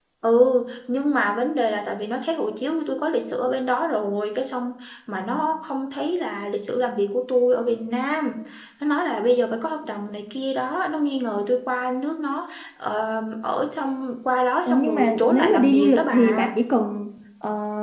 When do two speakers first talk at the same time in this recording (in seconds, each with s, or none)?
14.7 s